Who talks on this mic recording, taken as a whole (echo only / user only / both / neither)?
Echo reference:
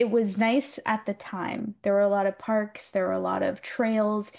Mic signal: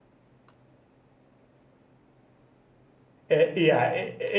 user only